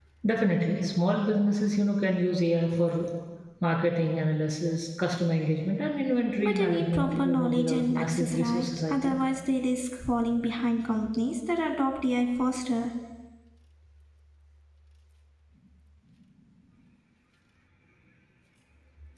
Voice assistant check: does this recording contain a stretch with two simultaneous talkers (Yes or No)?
Yes